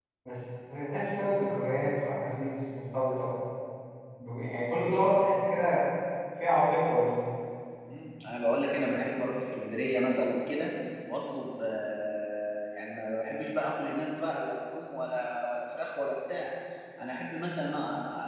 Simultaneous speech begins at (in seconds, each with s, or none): none